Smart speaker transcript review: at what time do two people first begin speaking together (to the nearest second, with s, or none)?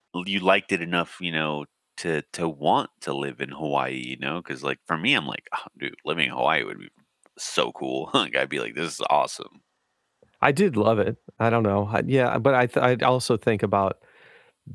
none